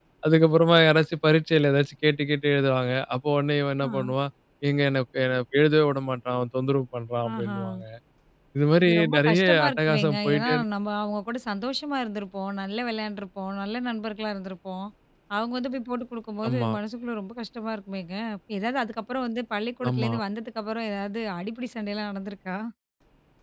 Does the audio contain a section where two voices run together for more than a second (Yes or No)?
Yes